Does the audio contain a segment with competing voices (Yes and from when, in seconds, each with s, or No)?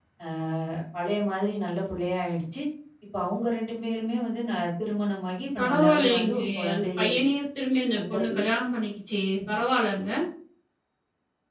Yes, from 5.6 s